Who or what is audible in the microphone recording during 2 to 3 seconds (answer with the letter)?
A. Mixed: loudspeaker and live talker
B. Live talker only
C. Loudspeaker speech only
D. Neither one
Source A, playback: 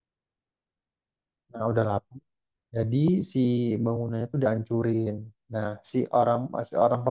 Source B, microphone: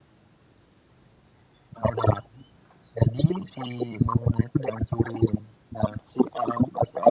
C